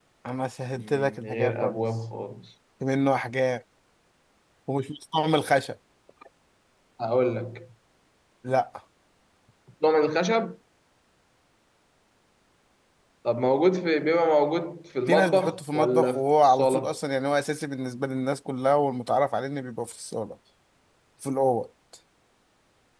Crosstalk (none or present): present